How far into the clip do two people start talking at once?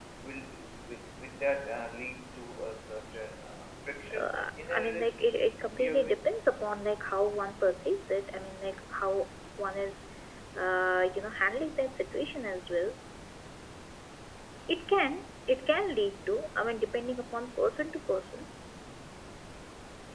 4.1 s

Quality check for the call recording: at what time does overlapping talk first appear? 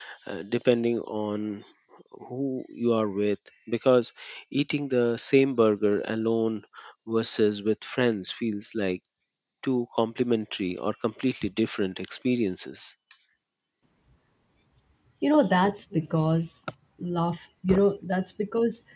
none

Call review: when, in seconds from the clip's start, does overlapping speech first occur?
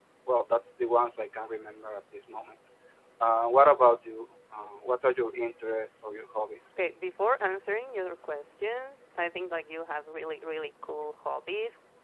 none

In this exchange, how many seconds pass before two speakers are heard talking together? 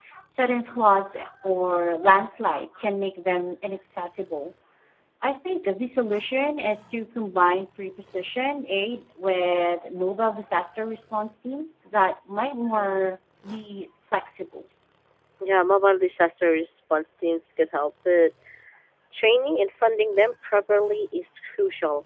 none

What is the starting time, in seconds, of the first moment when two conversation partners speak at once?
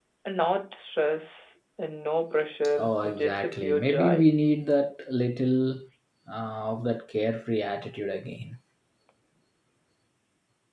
2.8 s

